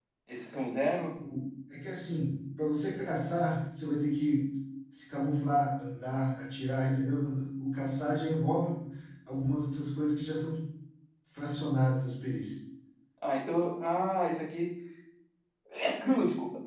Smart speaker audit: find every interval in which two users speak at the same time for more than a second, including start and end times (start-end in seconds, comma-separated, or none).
none